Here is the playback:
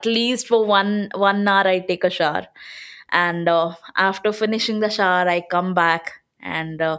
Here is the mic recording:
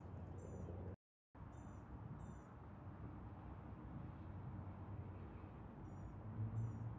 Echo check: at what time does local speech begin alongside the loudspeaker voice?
none

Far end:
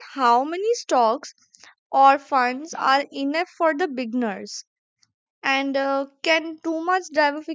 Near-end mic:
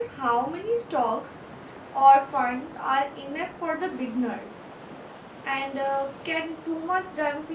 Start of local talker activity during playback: none

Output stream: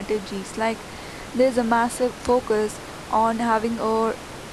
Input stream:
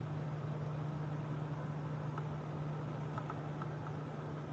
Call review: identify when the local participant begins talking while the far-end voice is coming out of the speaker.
none

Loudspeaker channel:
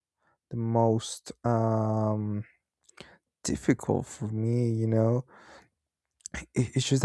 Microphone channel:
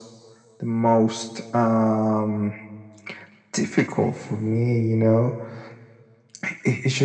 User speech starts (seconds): none

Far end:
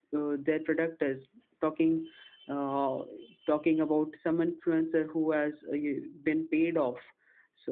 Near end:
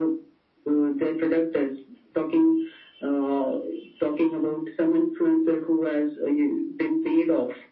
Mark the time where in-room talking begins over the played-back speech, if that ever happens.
none

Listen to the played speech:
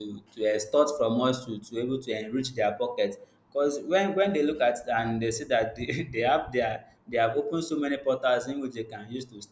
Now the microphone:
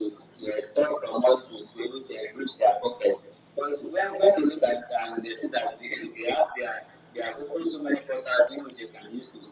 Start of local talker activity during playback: none

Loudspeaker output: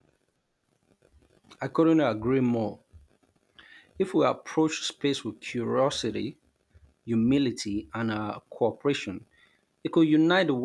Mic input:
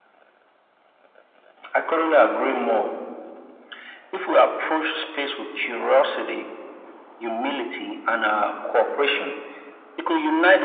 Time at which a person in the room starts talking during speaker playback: none

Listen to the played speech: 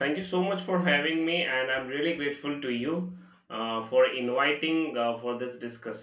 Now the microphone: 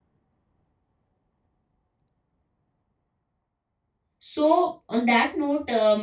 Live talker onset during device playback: 4.2 s

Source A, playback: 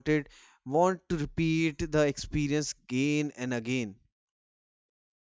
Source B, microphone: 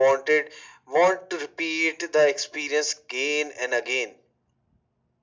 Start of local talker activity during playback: none

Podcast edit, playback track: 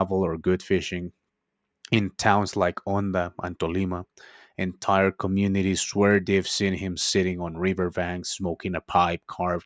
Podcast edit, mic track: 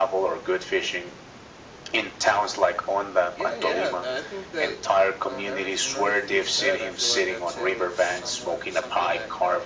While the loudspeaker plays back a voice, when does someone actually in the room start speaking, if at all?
3.3 s

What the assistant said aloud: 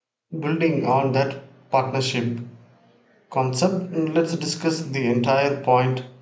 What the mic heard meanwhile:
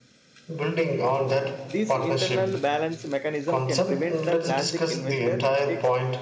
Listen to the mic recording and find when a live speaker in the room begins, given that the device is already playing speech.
1.6 s

